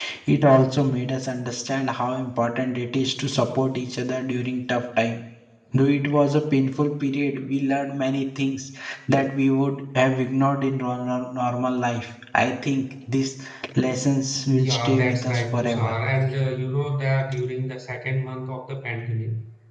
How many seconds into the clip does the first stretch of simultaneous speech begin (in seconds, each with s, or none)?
14.7 s